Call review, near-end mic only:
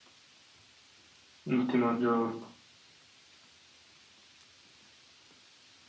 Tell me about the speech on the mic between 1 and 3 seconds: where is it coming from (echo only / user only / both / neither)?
user only